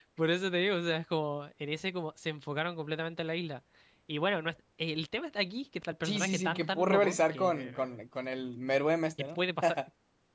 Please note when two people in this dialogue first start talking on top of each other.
6.0 s

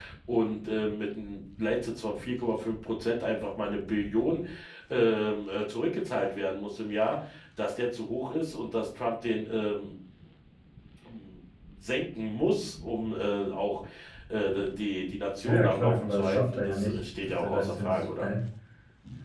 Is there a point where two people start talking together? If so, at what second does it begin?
15.4 s

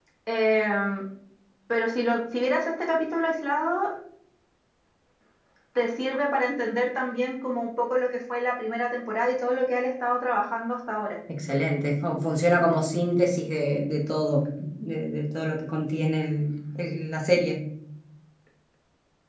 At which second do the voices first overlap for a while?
none

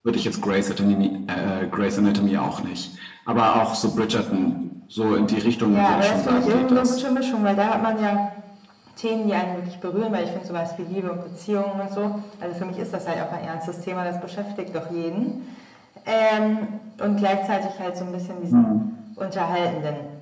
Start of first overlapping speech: 5.7 s

